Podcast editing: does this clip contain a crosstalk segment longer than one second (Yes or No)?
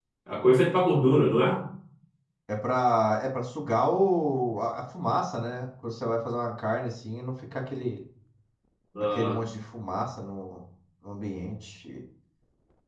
No